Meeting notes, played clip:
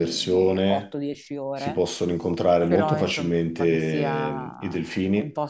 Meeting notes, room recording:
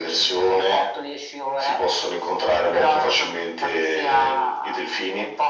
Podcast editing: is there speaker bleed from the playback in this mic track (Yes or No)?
Yes